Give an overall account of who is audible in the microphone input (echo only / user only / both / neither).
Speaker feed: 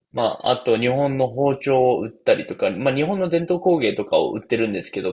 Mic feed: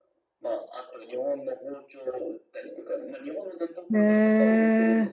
both